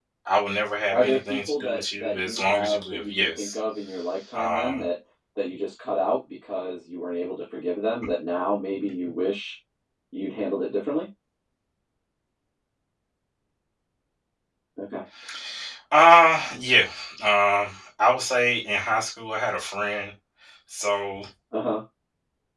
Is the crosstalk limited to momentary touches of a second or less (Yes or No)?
No